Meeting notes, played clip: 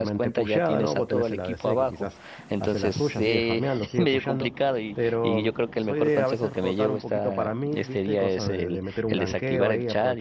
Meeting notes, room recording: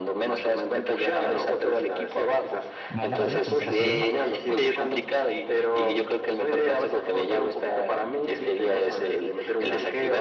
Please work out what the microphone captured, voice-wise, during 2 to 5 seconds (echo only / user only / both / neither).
both